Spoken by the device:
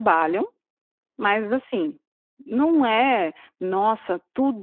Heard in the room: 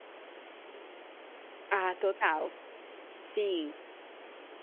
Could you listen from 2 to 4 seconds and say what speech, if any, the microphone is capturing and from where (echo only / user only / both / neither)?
user only